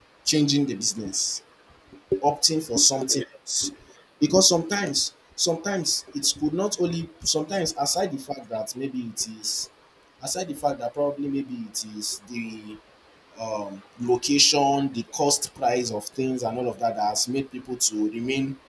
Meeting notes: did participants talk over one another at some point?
No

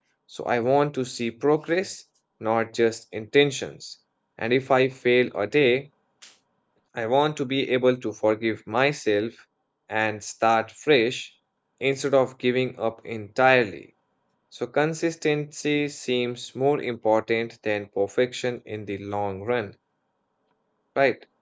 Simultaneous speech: No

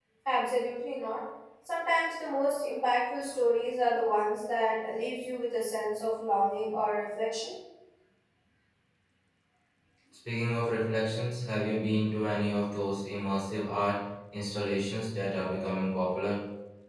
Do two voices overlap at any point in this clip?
No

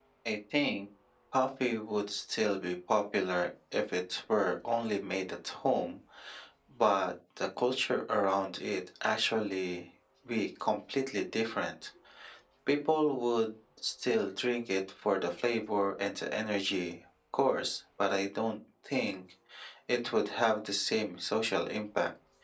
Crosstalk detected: No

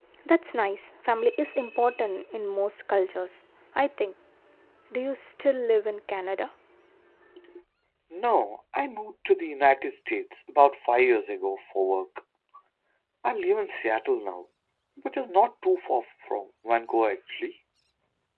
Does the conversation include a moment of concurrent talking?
No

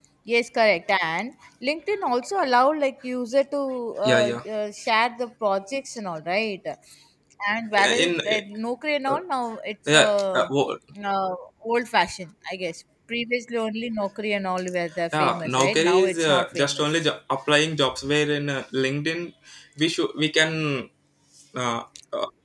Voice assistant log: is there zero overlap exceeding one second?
No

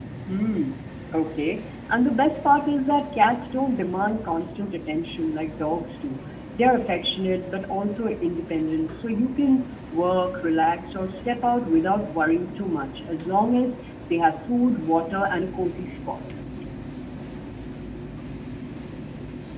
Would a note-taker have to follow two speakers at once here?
No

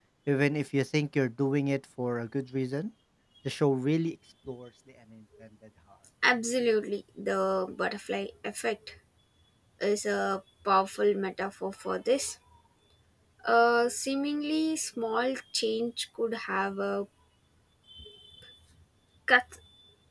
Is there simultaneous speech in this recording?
No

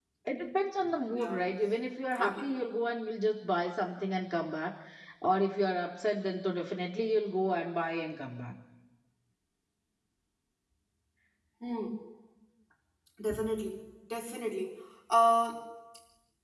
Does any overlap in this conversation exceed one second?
No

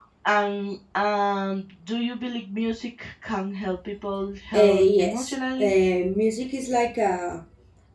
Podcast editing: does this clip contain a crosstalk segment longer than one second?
Yes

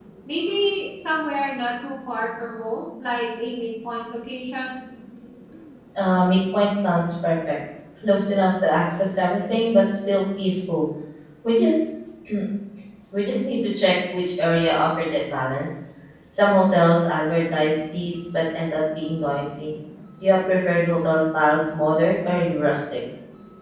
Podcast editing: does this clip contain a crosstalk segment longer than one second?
No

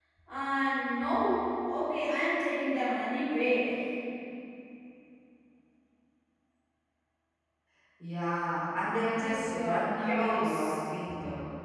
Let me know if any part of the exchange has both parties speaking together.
Yes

